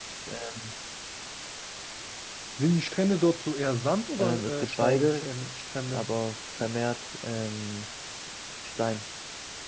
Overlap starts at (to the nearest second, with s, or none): 4 s